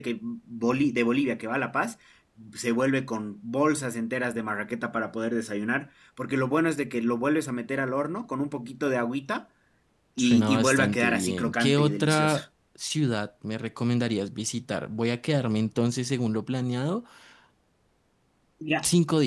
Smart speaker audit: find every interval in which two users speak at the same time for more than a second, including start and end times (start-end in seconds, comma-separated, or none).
10.2-12.4